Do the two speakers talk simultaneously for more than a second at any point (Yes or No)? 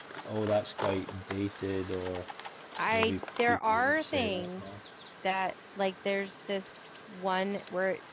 Yes